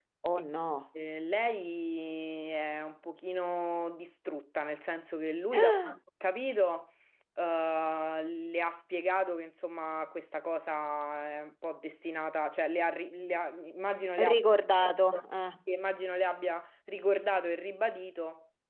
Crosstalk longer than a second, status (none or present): none